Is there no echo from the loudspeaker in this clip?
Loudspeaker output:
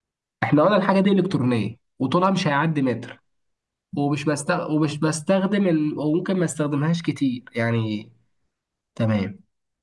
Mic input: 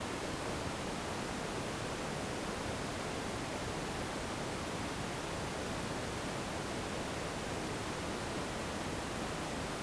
Yes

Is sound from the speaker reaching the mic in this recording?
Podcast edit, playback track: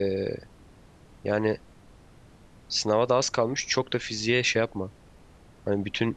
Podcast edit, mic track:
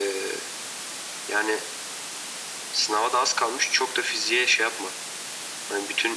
Yes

